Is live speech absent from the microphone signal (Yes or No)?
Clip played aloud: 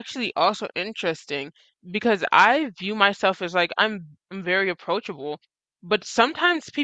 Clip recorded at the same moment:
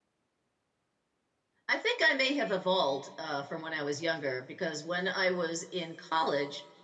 No